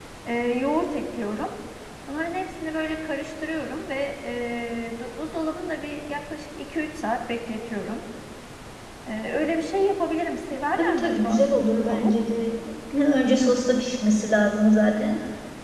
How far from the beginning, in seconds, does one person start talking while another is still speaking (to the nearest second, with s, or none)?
11 s